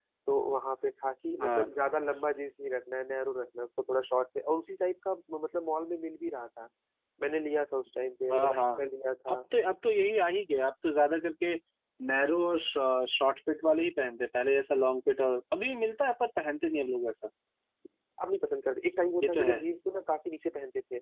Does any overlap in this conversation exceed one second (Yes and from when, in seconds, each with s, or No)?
No